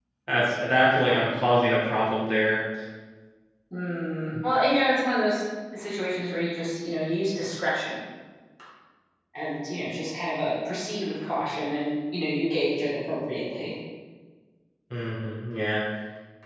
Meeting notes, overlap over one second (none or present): none